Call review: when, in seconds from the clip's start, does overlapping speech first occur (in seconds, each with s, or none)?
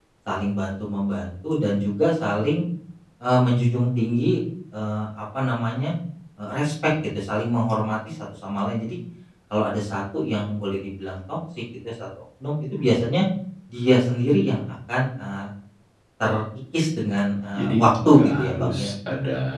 17.5 s